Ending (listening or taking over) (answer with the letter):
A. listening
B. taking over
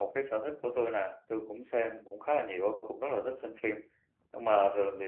A